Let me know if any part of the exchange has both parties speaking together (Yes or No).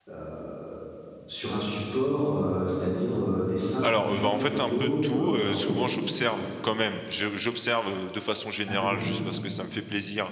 Yes